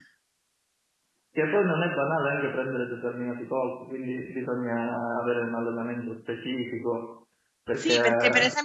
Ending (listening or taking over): taking over